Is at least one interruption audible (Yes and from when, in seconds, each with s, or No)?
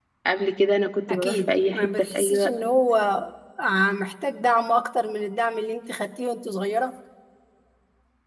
Yes, from 1.1 s